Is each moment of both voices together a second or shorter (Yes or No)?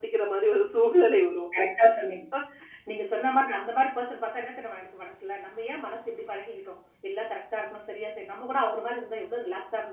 Yes